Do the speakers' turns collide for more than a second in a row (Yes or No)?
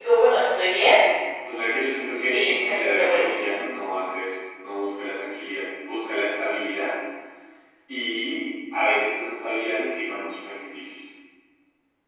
Yes